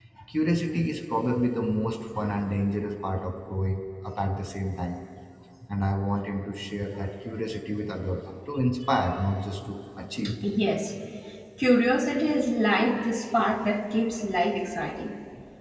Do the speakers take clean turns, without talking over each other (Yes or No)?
Yes